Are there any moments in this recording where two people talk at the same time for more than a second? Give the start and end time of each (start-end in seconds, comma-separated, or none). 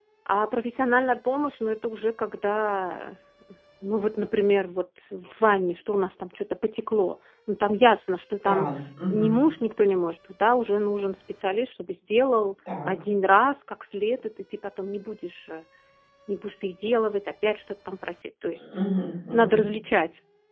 none